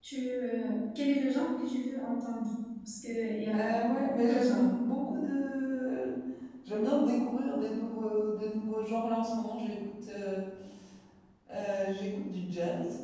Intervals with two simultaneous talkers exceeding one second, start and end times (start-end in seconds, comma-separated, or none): 3.5-4.8